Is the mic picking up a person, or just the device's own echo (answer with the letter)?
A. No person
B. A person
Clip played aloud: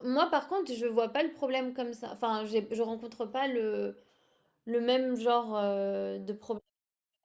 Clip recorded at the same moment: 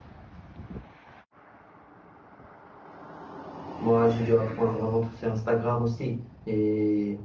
B